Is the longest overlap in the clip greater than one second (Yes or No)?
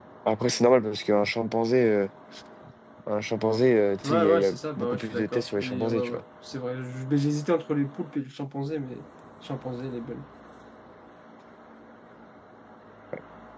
Yes